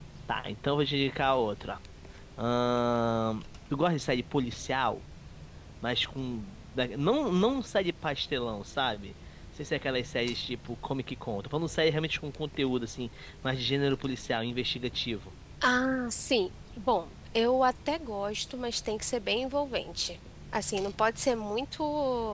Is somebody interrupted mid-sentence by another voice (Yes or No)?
No